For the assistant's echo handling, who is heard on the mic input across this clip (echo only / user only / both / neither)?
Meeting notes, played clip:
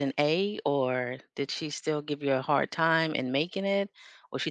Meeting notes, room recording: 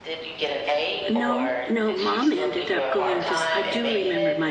both